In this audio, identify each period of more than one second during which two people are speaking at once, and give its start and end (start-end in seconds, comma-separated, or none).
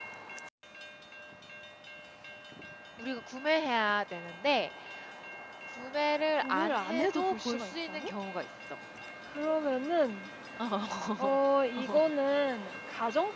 6.4-8.1